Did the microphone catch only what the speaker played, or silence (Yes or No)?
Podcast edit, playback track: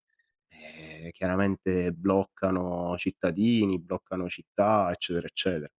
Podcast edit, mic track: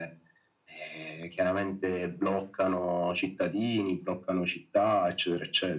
Yes